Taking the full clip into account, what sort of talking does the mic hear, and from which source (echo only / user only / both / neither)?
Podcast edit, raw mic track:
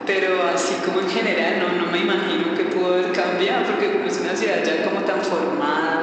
echo only